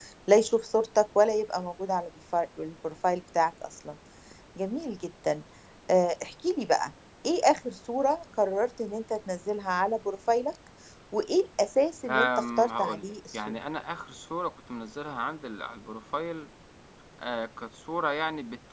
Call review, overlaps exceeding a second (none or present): present